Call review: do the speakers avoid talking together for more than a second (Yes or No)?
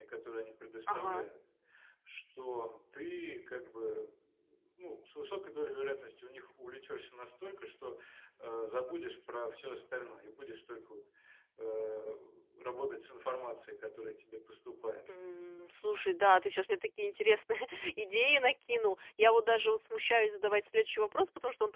Yes